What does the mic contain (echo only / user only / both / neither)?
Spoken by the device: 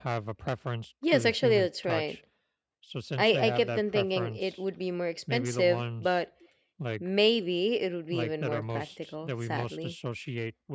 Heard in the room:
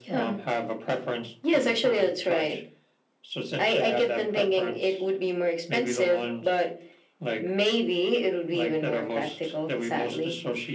echo only